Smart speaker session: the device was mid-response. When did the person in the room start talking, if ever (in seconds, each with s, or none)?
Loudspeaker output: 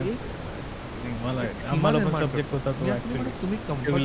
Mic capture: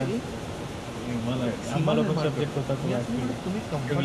none